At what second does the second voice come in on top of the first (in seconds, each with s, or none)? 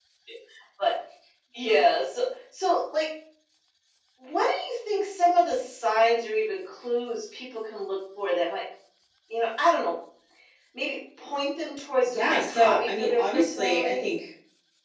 12.1 s